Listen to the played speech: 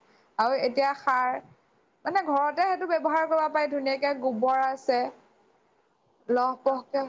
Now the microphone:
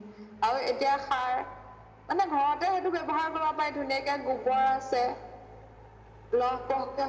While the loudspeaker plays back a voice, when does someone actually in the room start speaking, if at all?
none

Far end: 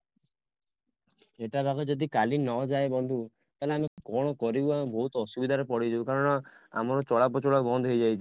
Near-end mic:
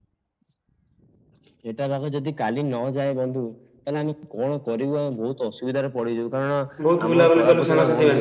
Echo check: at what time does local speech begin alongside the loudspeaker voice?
6.9 s

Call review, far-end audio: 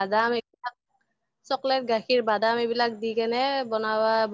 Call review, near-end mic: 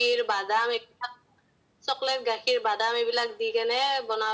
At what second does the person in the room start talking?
none

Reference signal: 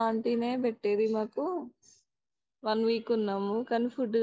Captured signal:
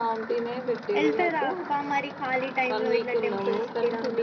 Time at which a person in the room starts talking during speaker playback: 1.0 s

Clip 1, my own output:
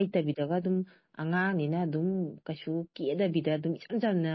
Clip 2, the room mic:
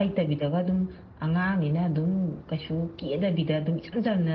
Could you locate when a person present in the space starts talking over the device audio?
none

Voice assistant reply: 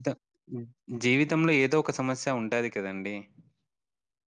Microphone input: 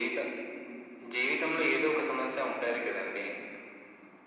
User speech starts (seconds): none

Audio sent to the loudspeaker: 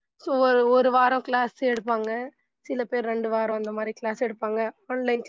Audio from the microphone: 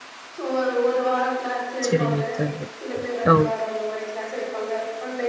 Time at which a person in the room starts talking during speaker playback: 1.9 s

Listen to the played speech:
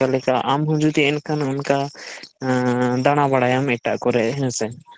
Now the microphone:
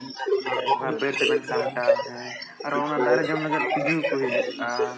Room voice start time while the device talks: 0.7 s

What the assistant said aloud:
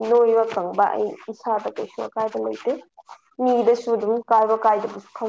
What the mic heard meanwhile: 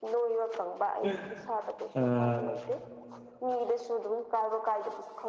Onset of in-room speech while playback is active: 1.0 s

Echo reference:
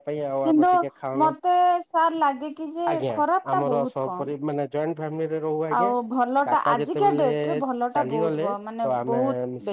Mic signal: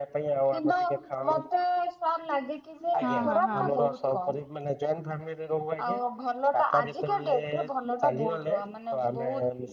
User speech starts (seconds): 3.0 s

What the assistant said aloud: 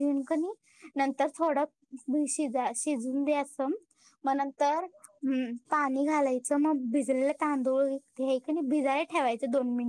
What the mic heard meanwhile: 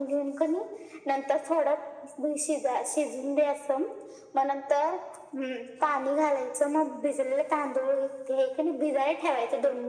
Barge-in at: none

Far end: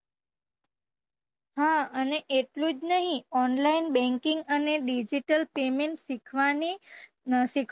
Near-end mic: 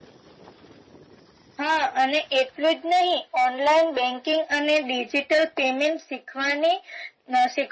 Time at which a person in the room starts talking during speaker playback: none

